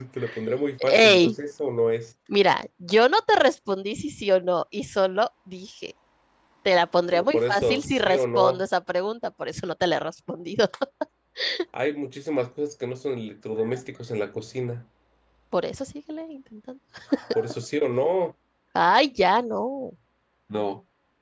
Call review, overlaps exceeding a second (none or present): present